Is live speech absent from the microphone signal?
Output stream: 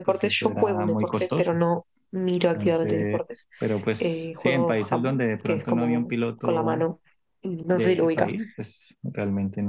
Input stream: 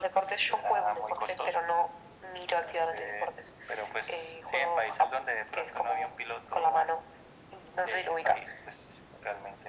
Yes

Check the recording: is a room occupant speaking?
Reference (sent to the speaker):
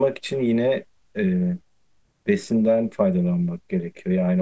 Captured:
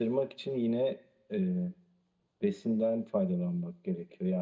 No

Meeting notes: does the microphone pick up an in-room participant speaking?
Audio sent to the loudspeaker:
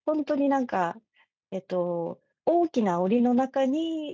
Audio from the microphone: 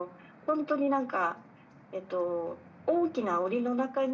No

